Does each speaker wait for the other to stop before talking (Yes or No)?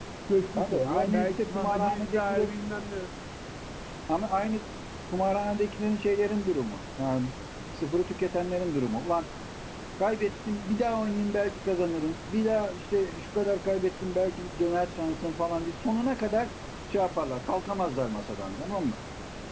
No